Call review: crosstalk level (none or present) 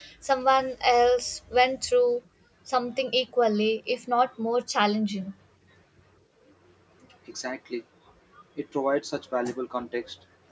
none